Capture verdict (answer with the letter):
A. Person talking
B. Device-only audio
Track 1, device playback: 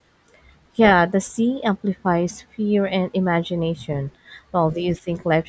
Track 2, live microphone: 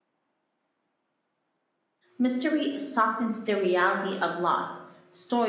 A